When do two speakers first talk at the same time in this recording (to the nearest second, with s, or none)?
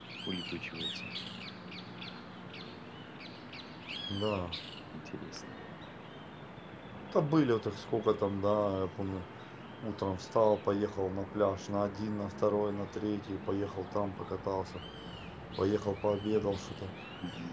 none